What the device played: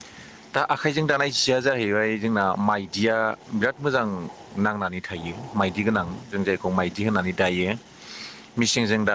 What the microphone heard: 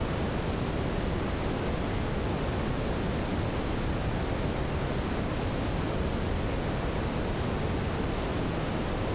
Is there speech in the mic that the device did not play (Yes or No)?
No